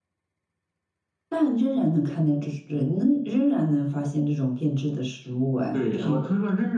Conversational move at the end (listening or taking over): taking over